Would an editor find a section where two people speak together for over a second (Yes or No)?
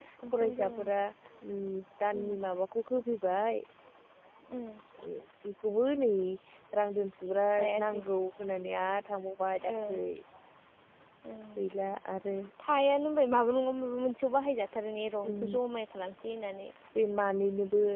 No